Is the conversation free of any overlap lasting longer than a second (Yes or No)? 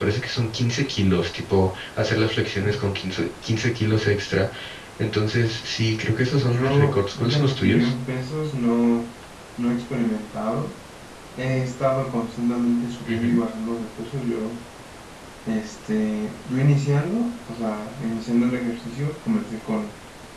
No